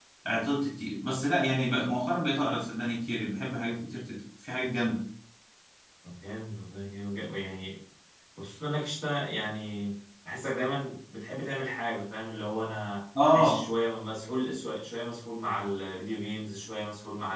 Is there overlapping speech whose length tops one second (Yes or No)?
No